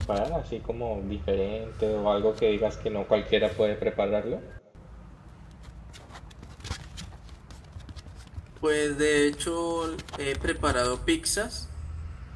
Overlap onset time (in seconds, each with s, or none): none